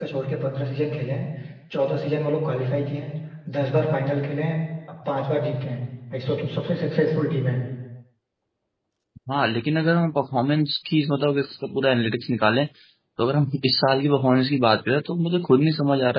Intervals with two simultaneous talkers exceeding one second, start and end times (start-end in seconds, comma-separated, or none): none